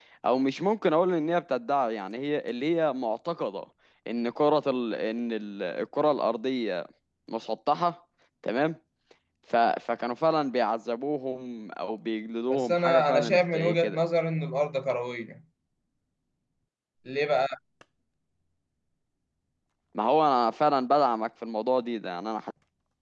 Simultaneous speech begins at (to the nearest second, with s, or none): 13 s